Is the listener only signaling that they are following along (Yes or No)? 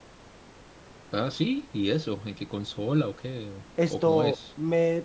No